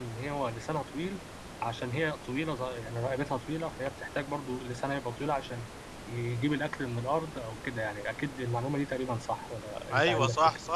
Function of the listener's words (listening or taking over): taking over